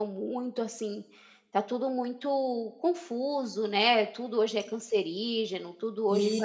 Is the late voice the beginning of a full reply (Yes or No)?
No